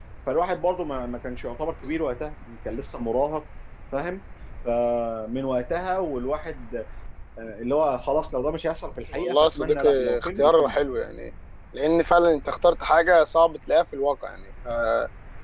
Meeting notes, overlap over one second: present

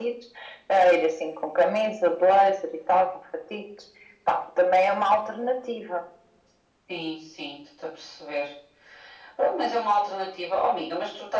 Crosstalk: none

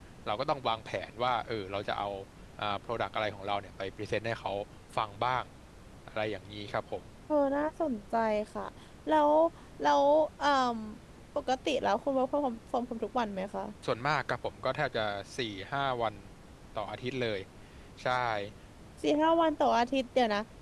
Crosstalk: none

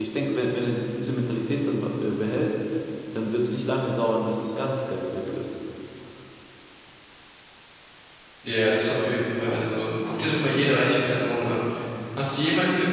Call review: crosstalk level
none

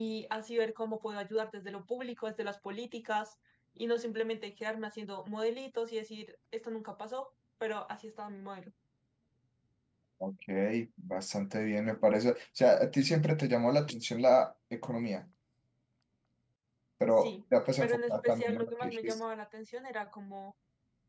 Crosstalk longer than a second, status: present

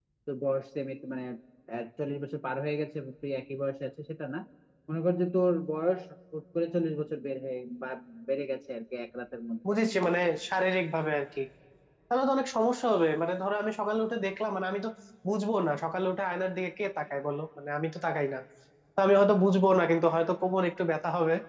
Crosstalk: none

